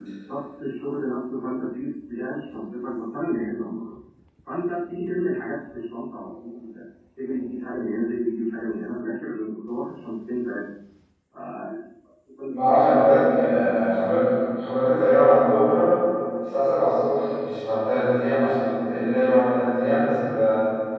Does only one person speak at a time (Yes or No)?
Yes